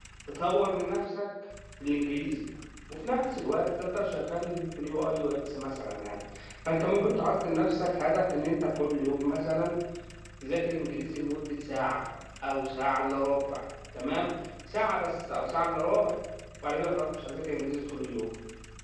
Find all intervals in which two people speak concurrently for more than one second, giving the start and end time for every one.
none

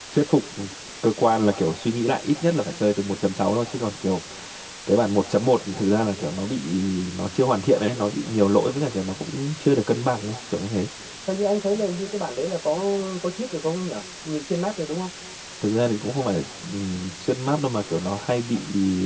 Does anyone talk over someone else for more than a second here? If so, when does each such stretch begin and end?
none

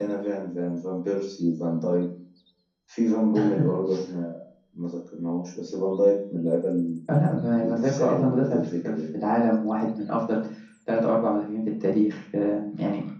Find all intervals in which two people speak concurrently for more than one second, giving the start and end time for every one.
7.6-8.9

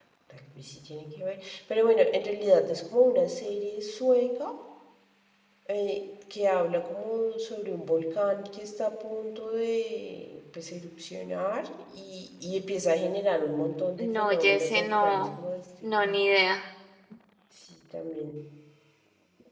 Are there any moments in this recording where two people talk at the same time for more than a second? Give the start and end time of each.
14.0-15.4

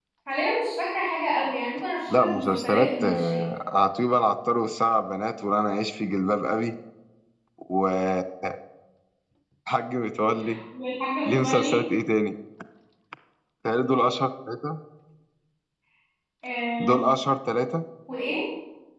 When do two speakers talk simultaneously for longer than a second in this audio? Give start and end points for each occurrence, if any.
2.1-3.4

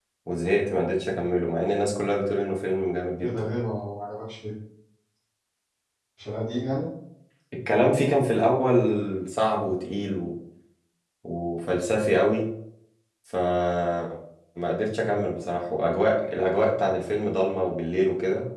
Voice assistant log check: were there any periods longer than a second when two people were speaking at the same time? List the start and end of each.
none

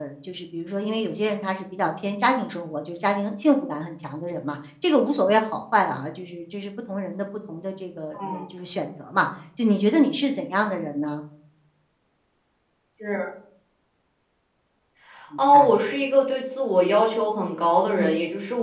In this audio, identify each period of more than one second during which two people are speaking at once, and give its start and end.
none

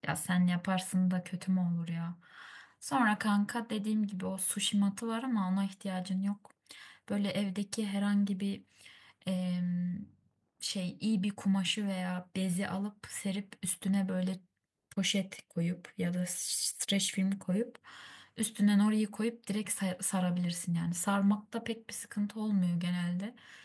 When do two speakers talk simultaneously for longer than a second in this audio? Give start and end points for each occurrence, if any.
none

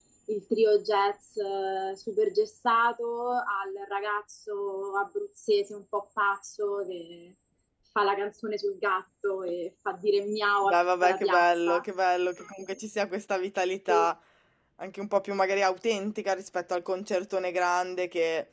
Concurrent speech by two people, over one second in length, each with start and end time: 10.6-11.8

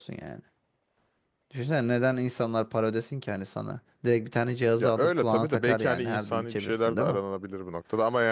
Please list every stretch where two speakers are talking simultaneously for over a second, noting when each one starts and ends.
4.8-7.2

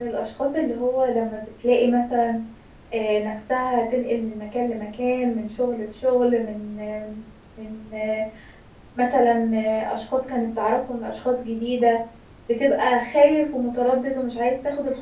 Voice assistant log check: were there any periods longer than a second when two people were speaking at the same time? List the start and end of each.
none

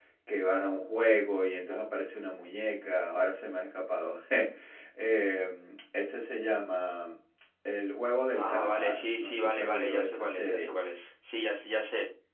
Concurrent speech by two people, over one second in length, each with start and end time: 8.4-10.7

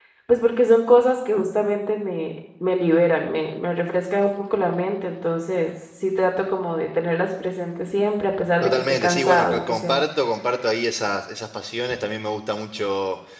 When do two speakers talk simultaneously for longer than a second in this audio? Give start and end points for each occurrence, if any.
8.6-9.9

